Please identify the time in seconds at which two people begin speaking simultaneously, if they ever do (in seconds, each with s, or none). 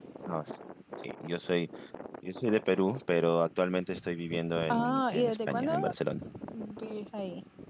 4.7 s